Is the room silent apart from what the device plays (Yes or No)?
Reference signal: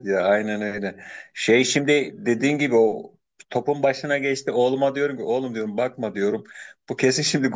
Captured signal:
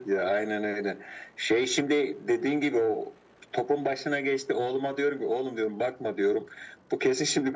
Yes